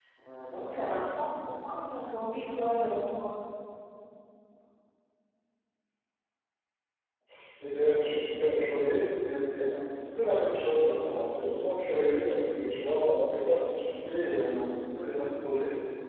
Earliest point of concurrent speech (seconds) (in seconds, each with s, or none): none